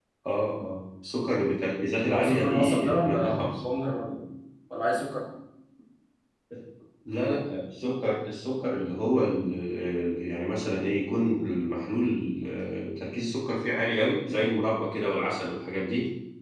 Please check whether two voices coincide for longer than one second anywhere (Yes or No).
Yes